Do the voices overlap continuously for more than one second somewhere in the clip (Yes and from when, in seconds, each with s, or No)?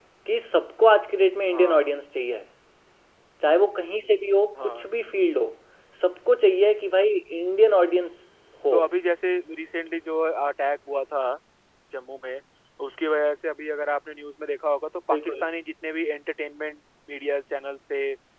No